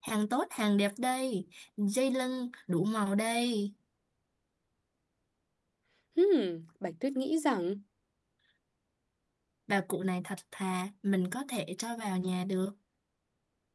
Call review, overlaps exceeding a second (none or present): none